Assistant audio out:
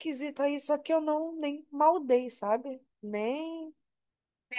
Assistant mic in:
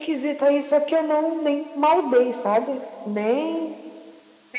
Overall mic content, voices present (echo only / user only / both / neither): echo only